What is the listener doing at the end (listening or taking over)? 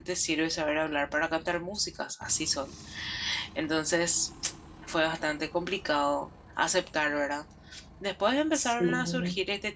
listening